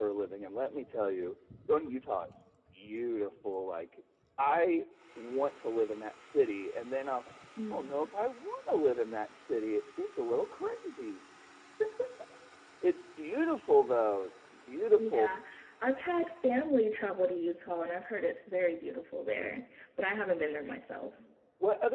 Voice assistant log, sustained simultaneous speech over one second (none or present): none